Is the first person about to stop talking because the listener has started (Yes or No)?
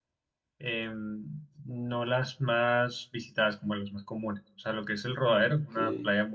No